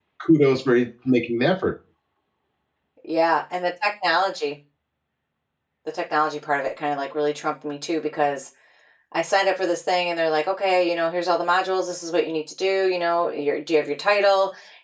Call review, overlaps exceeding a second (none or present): none